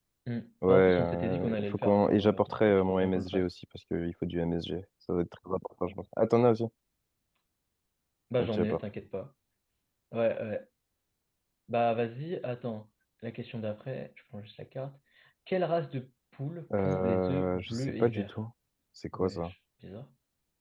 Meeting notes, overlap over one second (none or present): present